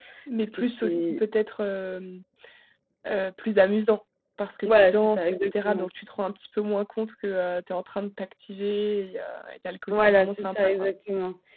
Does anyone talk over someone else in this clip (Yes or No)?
Yes